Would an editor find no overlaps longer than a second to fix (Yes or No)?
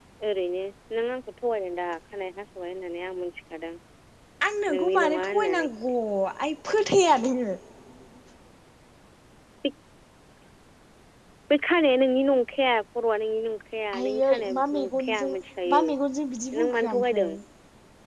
No